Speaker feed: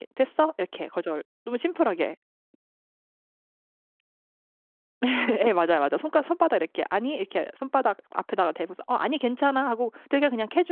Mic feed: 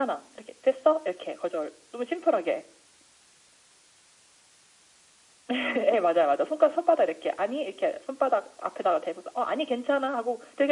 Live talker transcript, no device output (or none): none